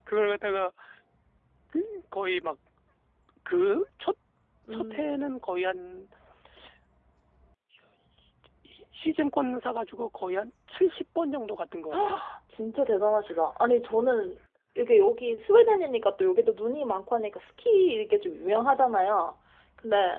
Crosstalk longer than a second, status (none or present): none